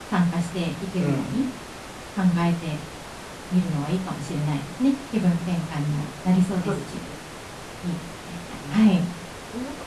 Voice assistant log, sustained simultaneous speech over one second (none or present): none